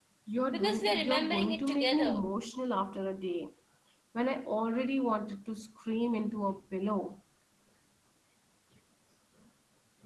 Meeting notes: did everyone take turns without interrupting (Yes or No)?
No